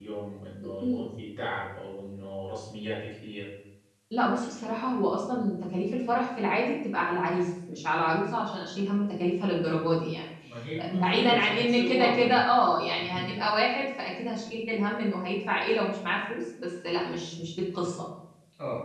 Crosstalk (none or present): present